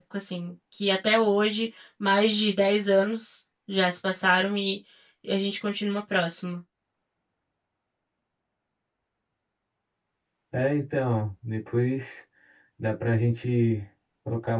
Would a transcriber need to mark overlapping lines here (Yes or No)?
No